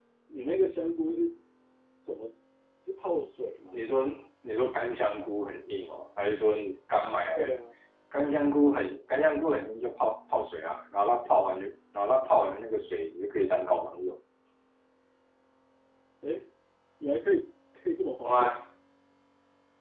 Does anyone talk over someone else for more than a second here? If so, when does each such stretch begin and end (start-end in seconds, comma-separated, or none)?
none